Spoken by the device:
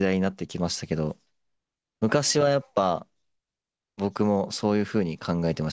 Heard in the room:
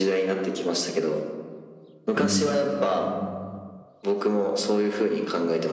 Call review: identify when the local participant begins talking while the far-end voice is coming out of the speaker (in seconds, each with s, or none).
2.2 s